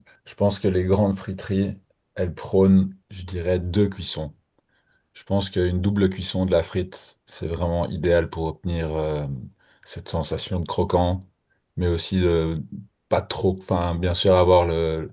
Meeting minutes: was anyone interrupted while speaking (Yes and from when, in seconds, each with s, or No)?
No